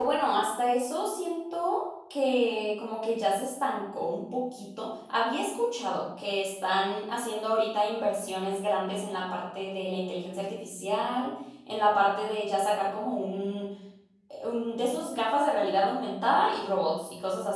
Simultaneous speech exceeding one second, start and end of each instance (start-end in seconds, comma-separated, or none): none